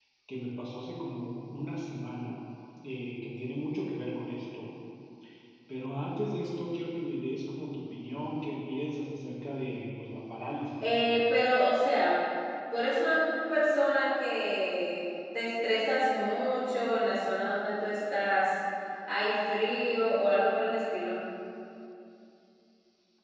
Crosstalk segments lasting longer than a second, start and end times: none

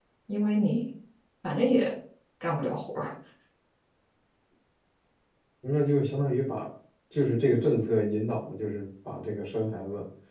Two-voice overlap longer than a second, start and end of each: none

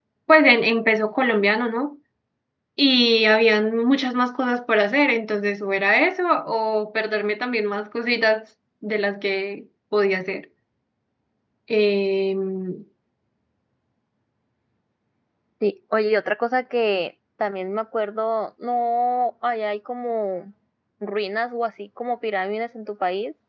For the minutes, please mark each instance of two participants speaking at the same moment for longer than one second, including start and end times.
none

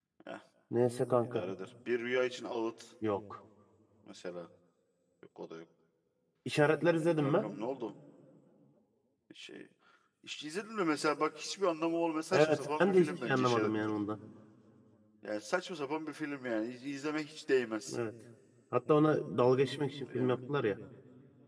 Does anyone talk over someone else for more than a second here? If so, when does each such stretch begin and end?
12.3-13.7

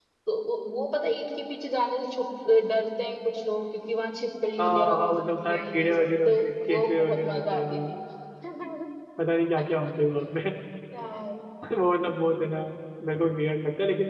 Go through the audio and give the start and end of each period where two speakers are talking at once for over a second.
4.6-7.8

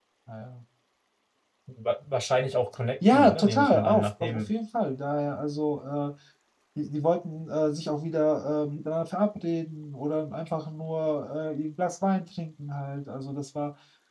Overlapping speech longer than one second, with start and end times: 3.1-4.4

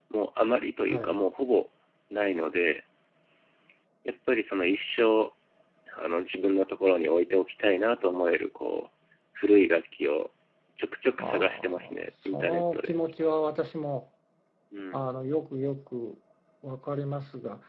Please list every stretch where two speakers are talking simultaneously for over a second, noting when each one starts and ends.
11.2-13.0

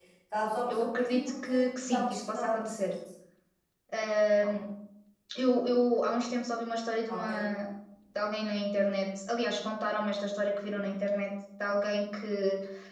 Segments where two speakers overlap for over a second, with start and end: 0.7-2.9

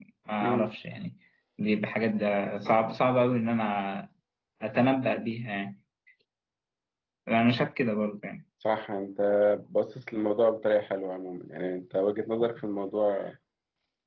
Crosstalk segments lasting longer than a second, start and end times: none

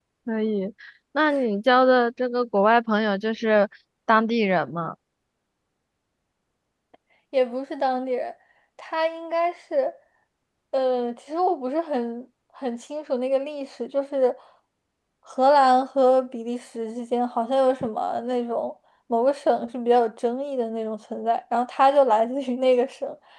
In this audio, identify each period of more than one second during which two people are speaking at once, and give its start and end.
none

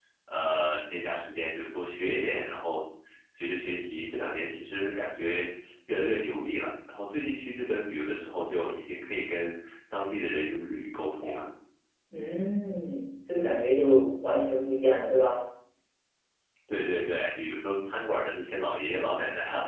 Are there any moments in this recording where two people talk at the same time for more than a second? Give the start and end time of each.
none

